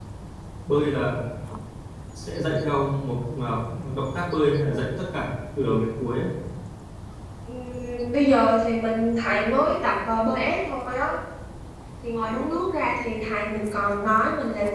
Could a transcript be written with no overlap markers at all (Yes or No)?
Yes